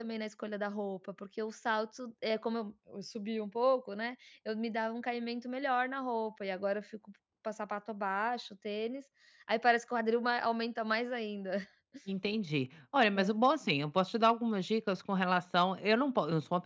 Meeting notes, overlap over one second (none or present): none